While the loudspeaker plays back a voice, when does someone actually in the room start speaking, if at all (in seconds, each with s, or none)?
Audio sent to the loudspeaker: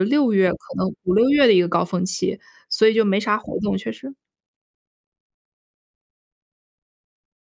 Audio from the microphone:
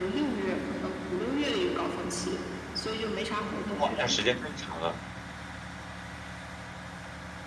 3.8 s